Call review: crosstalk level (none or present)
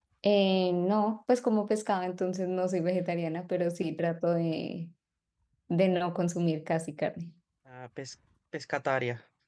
none